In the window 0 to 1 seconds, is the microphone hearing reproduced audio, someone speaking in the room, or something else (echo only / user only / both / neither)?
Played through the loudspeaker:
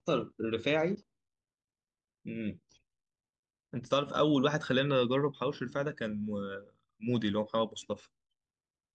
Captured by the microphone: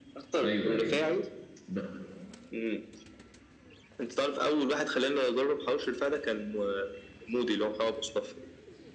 both